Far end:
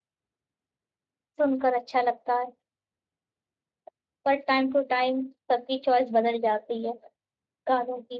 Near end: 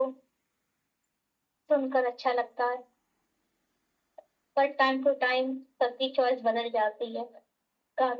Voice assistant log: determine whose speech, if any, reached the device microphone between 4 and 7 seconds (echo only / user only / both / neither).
echo only